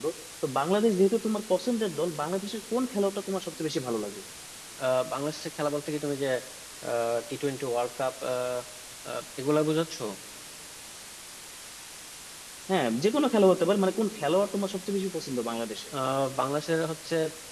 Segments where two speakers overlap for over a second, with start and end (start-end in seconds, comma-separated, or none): none